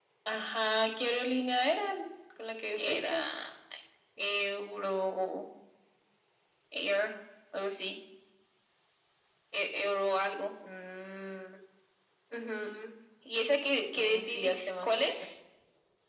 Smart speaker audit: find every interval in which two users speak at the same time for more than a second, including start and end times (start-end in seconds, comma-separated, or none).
13.9-15.2